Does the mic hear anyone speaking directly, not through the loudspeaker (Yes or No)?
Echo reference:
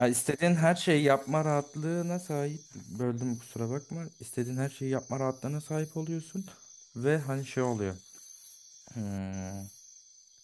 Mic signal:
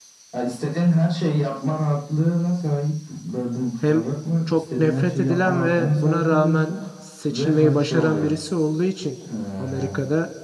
Yes